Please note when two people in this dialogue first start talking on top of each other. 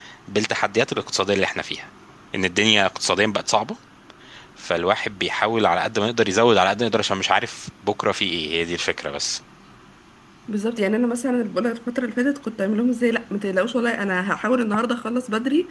none

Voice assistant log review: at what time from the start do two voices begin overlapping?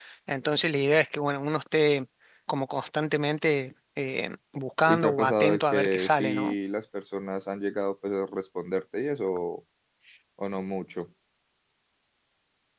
5 s

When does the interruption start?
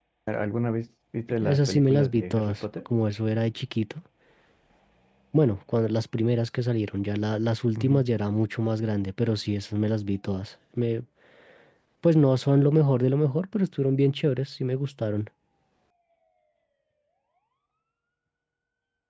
1 s

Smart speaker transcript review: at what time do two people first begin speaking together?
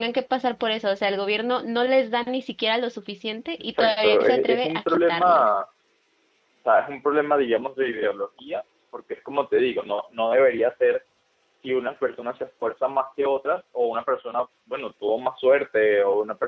4 s

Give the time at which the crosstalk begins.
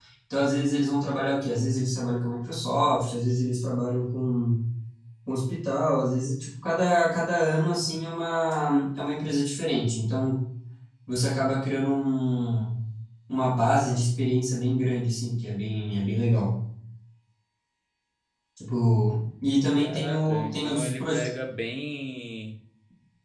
20 s

